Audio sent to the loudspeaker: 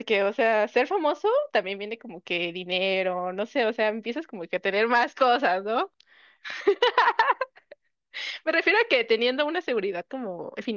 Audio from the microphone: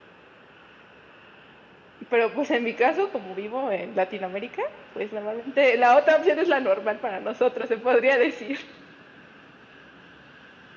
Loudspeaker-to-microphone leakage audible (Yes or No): No